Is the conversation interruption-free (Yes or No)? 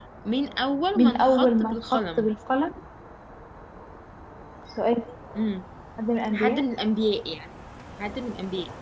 No